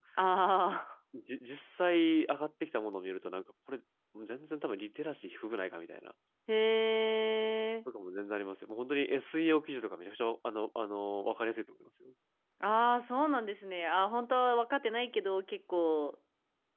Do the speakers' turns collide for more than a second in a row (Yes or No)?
No